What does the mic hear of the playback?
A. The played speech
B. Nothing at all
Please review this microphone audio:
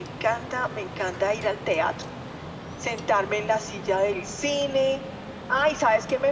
A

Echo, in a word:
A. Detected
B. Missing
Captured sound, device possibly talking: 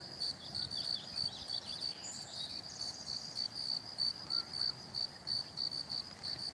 B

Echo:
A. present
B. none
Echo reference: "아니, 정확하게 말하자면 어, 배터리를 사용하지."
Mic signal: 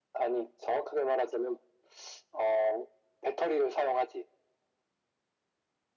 A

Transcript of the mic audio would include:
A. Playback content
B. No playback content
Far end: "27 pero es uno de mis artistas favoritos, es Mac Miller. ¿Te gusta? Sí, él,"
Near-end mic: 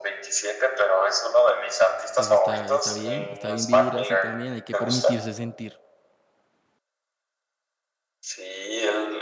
A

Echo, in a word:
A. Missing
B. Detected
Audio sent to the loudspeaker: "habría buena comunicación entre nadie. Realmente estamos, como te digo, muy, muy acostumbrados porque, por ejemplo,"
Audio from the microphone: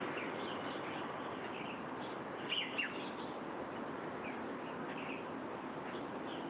A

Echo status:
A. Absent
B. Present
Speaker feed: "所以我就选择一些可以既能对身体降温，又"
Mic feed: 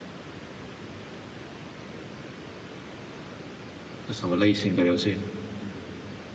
A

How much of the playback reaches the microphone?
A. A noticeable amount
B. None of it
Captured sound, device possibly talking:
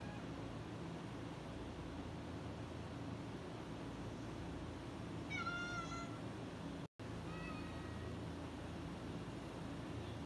B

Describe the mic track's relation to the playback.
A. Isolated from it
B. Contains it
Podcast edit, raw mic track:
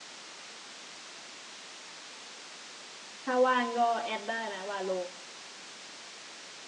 A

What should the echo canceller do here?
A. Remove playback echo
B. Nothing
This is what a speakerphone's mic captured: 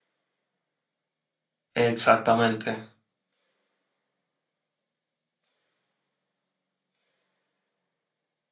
B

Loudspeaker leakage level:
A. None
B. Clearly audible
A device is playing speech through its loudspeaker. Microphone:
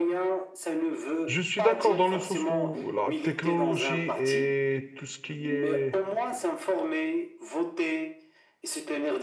B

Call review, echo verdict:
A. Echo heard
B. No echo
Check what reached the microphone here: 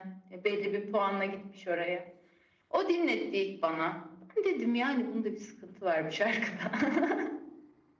A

